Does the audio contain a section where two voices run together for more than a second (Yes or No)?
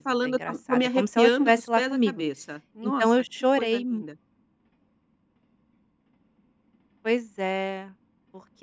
Yes